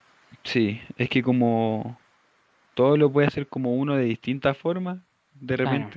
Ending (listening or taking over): listening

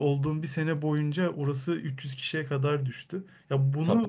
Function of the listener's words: listening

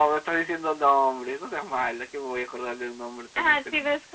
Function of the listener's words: taking over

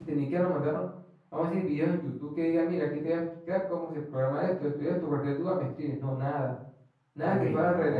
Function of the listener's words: listening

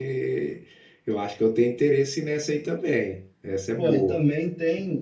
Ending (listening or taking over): taking over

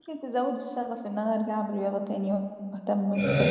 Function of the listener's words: taking over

